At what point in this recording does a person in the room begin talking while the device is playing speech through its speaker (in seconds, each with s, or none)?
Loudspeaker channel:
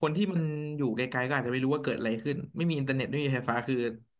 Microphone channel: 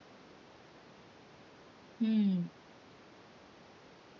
2.0 s